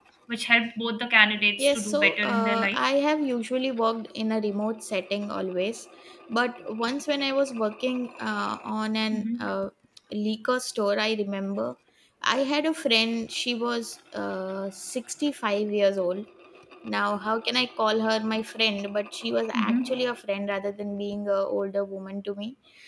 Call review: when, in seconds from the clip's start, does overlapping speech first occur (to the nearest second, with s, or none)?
2 s